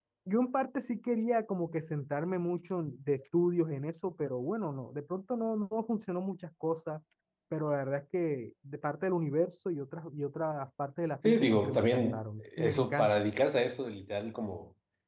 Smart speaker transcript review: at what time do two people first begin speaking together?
11.2 s

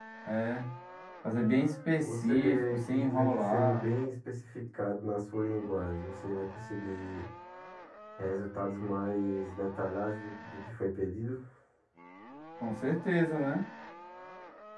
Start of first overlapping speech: 2.0 s

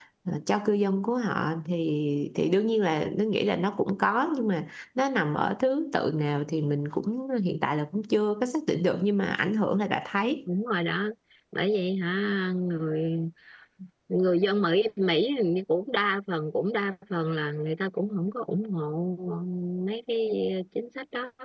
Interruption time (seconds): none

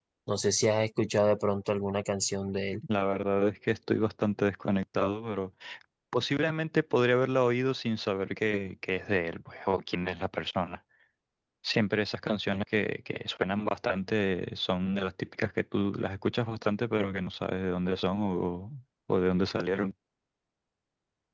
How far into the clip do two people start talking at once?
none

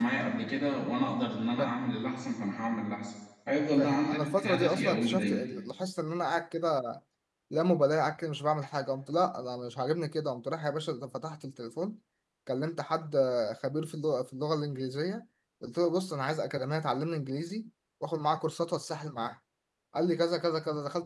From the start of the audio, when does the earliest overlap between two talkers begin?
3.8 s

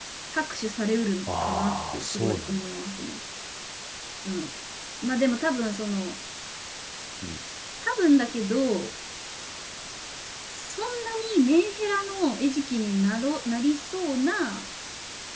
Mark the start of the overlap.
1.3 s

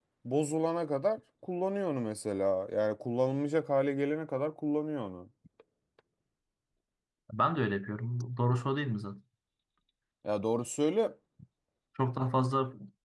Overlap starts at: none

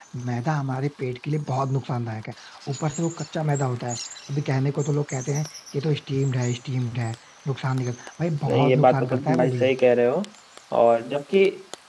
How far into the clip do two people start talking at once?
8.5 s

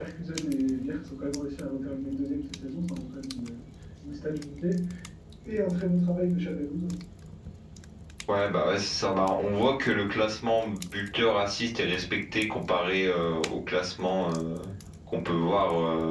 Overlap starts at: none

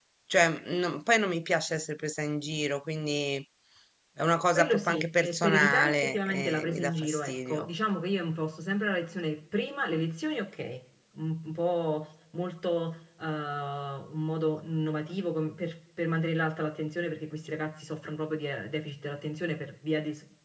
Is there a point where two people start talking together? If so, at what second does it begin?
4.5 s

